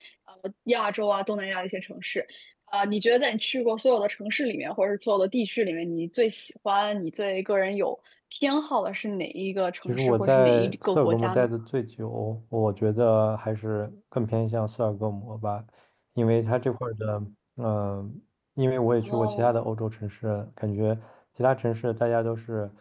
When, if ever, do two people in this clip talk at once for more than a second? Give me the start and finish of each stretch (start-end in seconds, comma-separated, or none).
9.9-11.5